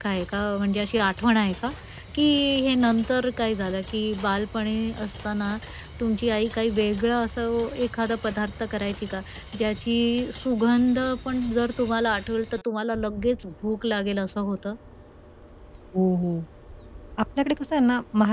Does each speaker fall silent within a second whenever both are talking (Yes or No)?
Yes